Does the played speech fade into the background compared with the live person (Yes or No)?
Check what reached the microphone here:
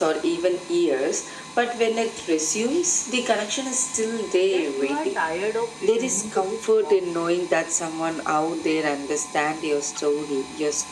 No